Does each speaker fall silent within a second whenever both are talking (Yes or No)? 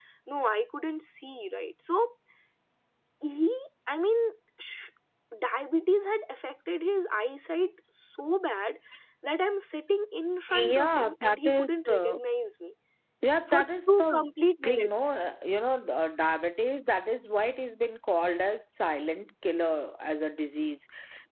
No